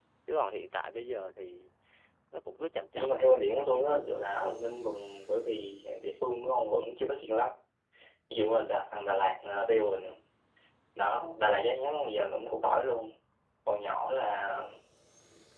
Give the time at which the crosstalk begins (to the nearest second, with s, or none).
3 s